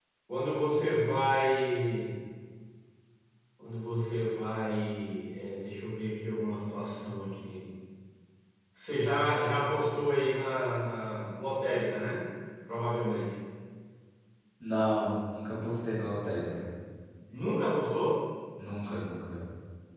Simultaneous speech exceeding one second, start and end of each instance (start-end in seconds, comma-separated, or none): none